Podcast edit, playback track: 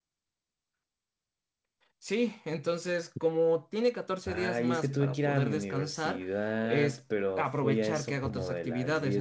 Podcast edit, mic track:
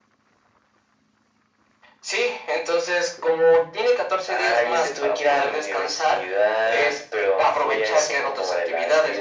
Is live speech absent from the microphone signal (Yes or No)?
Yes